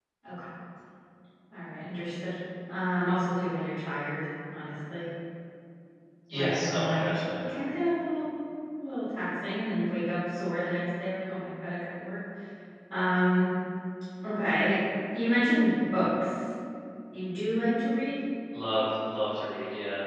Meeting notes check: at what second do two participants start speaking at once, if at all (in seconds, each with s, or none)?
6.3 s